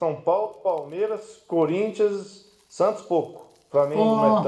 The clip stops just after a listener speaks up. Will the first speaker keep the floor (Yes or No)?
Yes